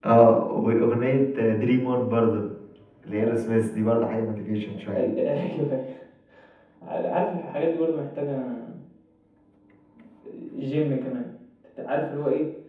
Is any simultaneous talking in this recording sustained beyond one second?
No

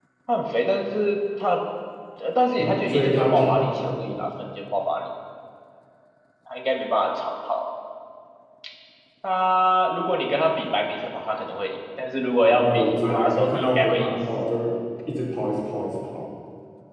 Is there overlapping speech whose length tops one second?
Yes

